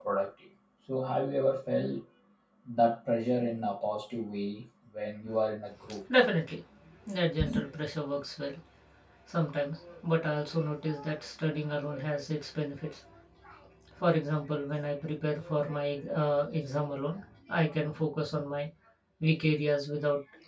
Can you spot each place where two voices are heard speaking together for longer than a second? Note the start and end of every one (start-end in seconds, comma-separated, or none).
none